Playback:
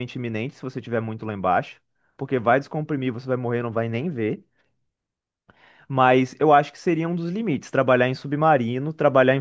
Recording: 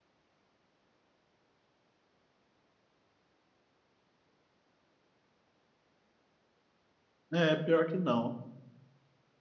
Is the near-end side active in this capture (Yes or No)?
Yes